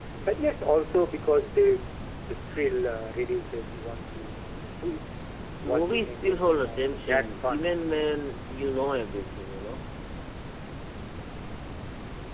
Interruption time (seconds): 6 s

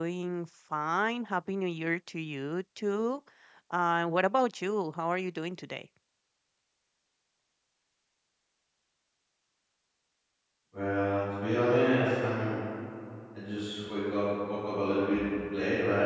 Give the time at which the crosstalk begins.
none

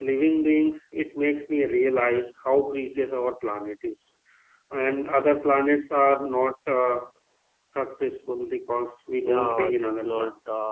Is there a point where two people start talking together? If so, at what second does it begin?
9 s

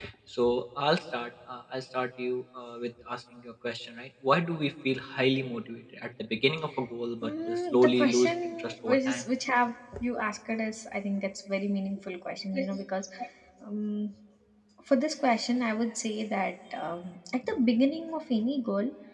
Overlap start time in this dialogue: 7 s

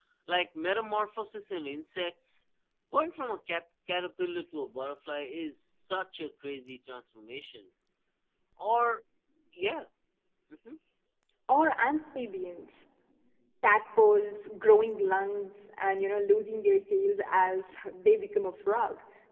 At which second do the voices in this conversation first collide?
none

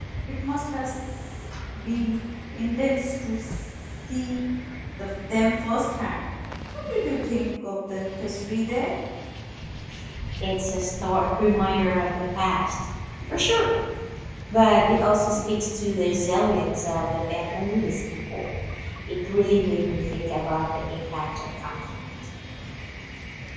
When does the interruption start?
none

